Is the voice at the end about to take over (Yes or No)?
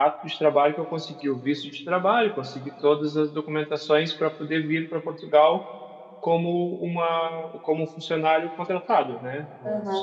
Yes